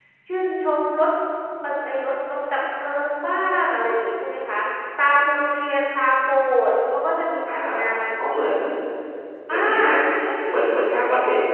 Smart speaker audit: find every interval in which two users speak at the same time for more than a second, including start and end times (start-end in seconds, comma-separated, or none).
none